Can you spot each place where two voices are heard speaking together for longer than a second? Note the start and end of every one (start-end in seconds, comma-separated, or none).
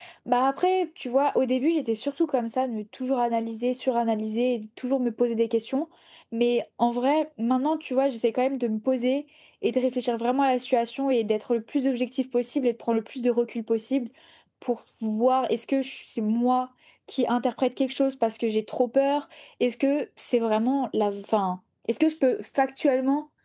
none